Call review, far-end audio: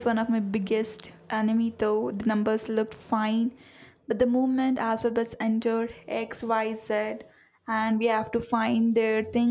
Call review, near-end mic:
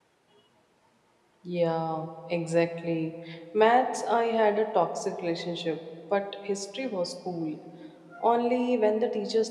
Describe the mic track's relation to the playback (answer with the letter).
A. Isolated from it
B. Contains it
A